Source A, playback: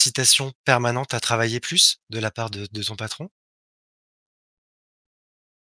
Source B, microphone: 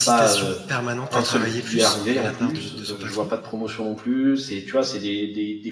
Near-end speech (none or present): present